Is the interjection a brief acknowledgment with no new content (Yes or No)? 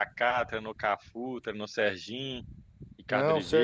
No